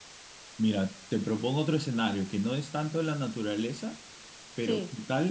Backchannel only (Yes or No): Yes